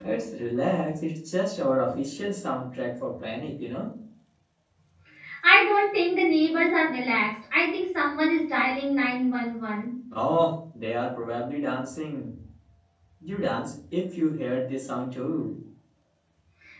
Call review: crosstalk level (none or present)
none